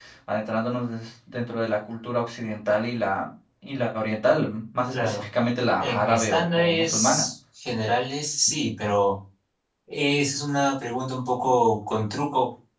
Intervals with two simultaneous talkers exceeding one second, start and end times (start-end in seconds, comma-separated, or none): 5.8-7.3